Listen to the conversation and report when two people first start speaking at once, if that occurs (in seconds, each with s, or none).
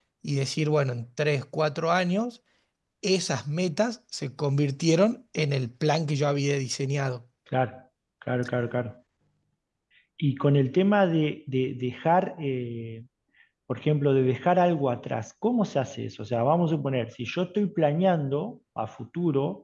none